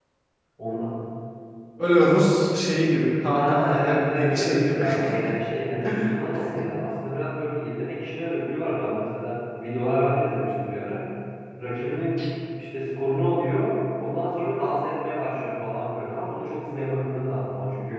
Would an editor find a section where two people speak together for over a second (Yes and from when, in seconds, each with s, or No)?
Yes, from 3.2 s